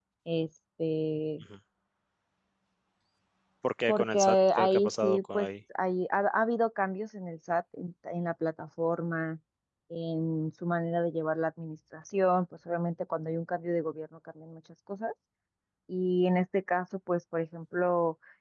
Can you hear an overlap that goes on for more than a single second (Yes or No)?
Yes